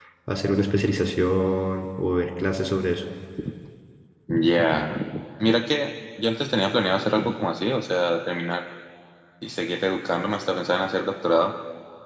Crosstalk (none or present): none